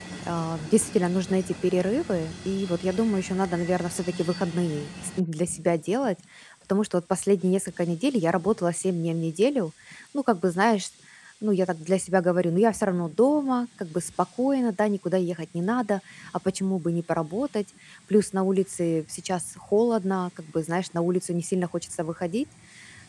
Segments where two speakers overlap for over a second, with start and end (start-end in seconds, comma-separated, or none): none